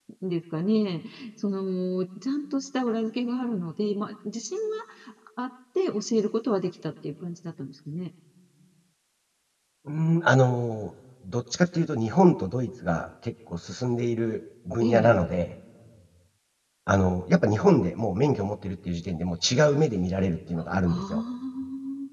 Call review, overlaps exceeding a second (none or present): none